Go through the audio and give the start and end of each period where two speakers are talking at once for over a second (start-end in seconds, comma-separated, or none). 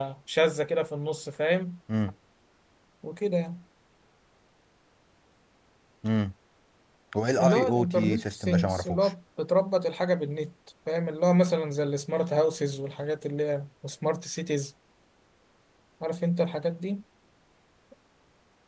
7.4-9.1